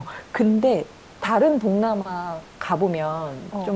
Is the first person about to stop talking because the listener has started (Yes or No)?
No